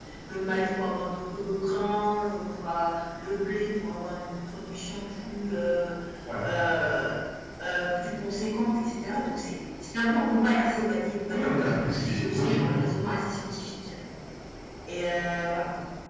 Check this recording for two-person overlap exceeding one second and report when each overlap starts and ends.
11.3-12.8

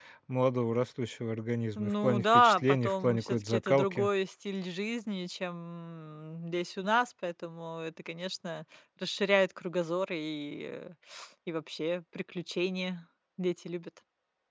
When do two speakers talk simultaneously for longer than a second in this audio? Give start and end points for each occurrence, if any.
1.8-4.1

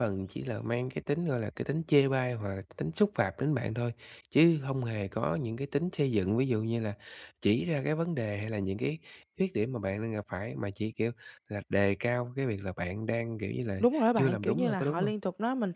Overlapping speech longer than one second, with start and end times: 13.8-15.1

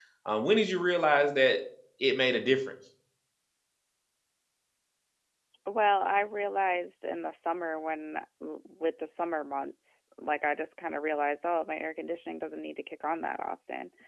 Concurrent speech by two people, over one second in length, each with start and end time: none

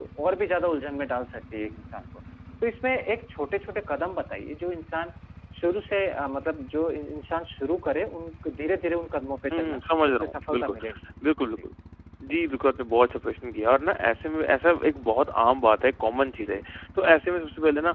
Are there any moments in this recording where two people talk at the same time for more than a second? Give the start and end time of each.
9.5-10.7

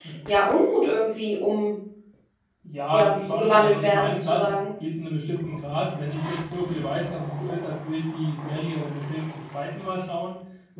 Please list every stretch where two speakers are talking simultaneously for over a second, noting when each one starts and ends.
2.9-4.5

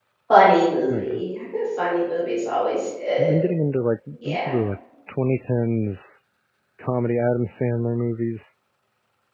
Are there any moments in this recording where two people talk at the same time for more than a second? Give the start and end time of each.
none

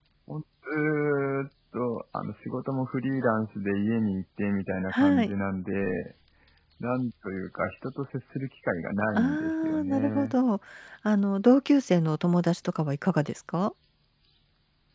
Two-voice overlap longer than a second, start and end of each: 9.1-10.3

